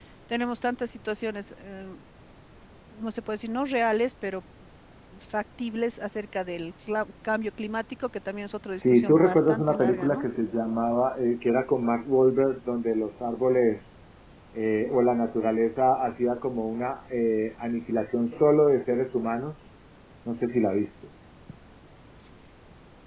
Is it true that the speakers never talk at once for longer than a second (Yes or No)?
No